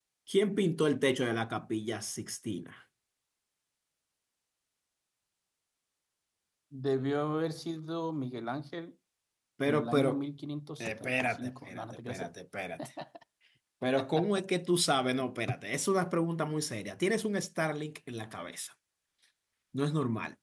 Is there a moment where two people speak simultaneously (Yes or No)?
Yes